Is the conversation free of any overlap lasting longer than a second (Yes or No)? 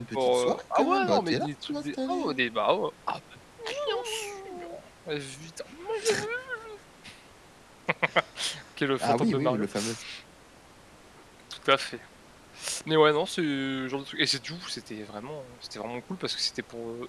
No